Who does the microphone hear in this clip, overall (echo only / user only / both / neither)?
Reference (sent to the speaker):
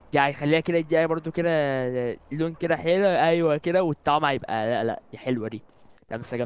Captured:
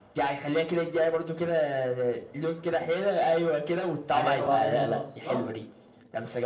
both